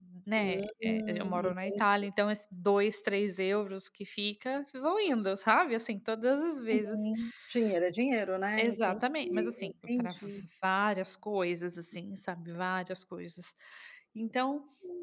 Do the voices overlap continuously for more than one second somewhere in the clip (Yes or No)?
Yes